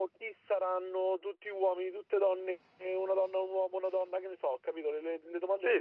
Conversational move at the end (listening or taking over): taking over